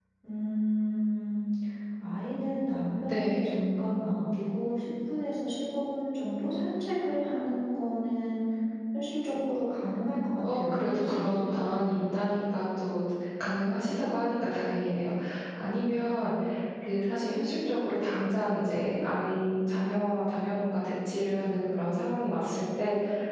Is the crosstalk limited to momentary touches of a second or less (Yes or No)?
No